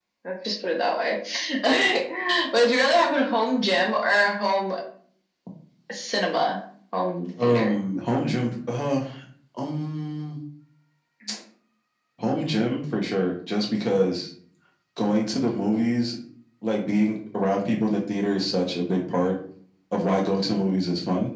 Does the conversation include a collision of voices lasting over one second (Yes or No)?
No